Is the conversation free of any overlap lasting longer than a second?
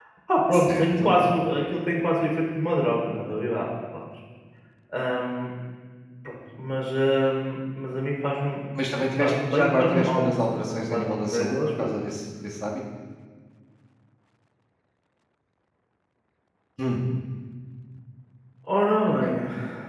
No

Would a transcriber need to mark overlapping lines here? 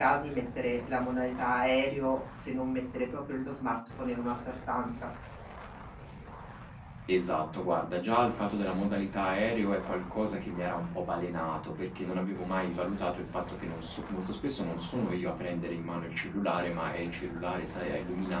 No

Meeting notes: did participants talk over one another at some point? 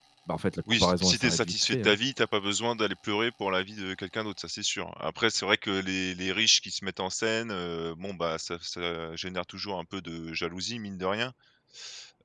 Yes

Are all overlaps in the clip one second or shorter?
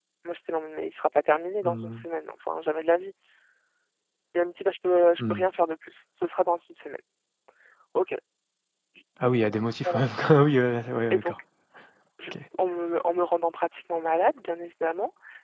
Yes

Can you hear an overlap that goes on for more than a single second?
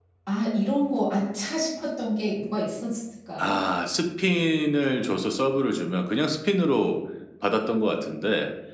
No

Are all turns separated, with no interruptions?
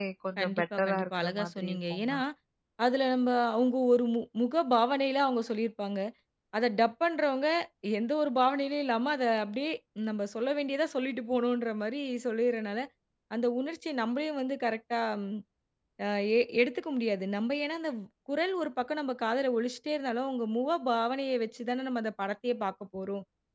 No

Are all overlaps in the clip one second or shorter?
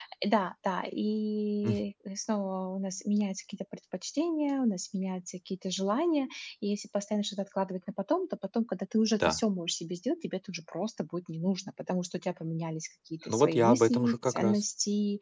No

